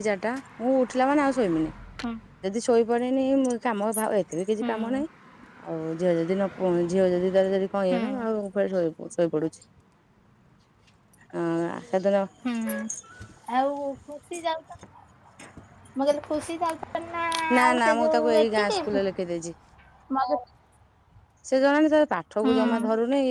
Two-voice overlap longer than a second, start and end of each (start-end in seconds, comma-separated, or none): 17.6-18.9